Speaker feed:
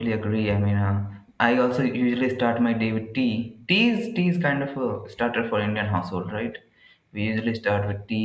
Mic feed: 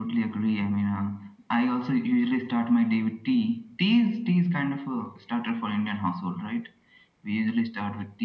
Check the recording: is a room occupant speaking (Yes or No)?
No